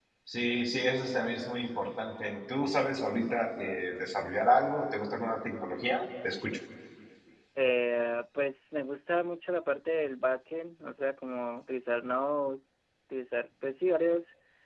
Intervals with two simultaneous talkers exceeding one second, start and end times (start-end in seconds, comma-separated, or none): none